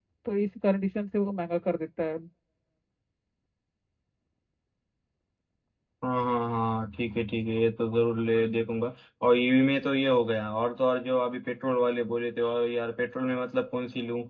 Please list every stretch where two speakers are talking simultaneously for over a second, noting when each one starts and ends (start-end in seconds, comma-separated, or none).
none